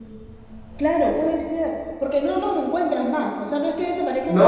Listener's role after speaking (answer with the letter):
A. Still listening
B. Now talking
B